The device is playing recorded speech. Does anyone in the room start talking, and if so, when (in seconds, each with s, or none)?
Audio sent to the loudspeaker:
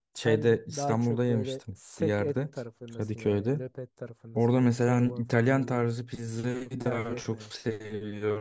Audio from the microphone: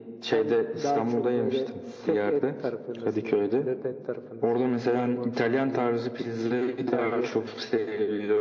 none